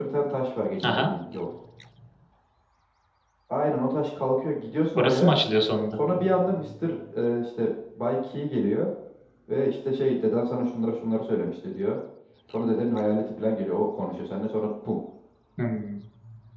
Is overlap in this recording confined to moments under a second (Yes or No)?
Yes